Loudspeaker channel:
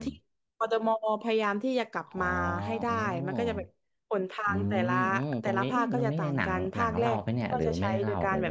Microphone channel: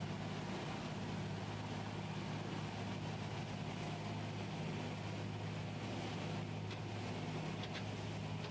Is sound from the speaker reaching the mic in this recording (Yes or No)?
No